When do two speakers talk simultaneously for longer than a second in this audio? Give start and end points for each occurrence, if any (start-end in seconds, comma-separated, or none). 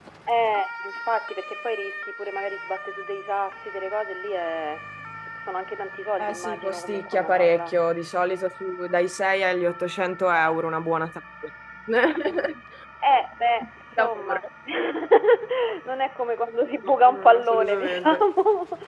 6.2-7.8, 16.8-18.2